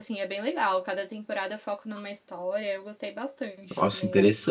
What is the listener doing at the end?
taking over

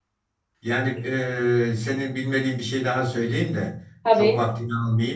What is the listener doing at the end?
listening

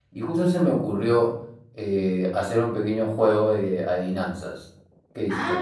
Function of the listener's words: taking over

